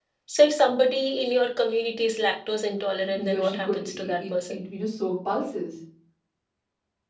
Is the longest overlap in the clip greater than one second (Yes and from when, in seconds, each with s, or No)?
Yes, from 3.1 s